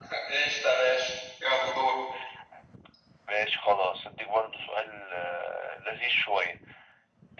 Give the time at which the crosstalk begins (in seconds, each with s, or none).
none